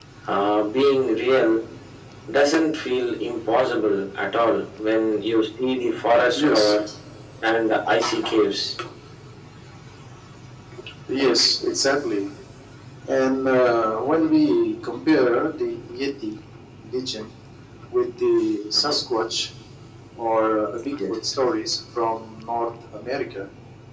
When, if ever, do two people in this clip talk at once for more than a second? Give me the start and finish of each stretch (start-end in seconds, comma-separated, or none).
none